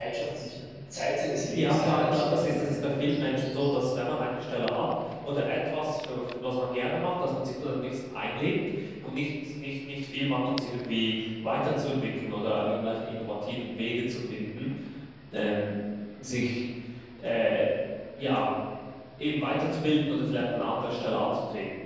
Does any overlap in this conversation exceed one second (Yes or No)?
Yes